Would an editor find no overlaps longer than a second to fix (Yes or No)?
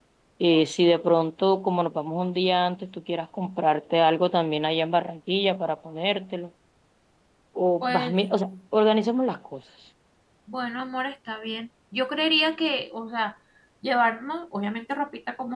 Yes